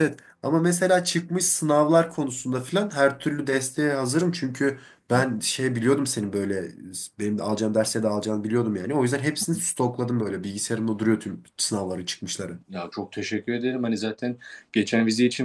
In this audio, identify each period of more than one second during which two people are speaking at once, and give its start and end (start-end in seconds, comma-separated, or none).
none